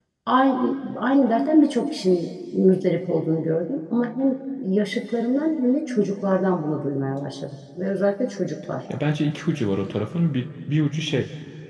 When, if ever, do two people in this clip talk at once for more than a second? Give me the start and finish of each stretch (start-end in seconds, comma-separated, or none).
none